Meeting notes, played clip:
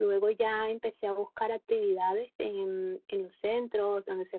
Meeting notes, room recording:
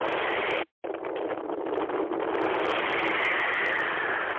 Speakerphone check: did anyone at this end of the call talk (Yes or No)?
No